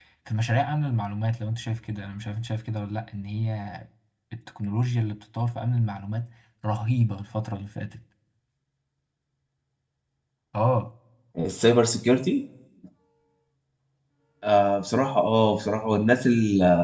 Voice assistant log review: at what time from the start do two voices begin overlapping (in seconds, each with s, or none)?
none